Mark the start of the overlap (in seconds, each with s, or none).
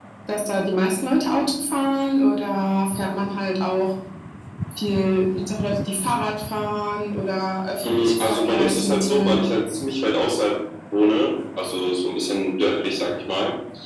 7.8 s